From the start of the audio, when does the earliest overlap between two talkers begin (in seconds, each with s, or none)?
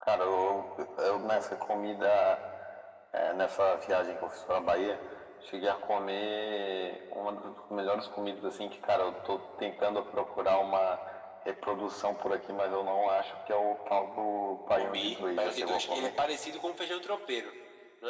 14.7 s